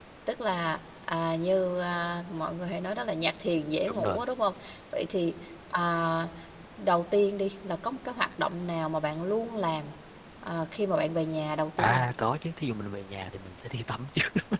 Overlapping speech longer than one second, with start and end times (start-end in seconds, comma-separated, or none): none